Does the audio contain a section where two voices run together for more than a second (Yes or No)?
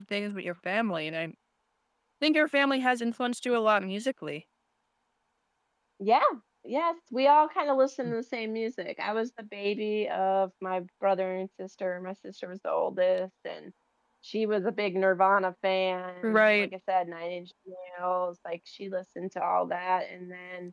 No